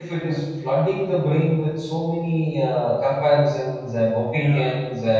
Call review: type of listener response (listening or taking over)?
listening